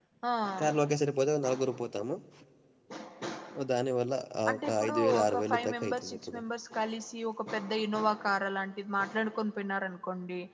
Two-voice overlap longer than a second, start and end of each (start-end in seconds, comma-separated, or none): 4.6-6.4